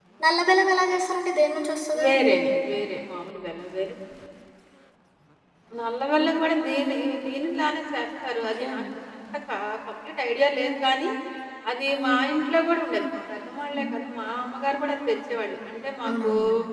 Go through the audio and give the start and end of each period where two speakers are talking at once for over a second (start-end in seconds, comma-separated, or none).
none